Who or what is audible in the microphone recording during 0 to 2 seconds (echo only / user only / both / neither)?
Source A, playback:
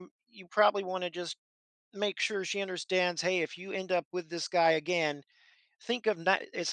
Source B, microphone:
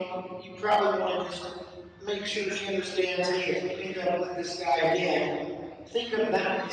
echo only